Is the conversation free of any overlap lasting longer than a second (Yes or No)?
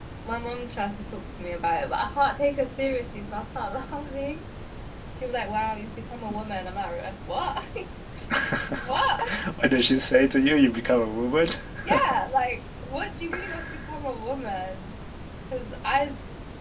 Yes